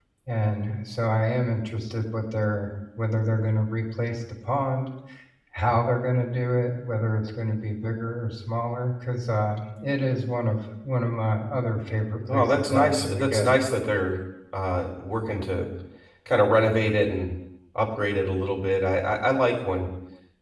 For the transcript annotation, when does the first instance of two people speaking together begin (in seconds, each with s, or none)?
12.3 s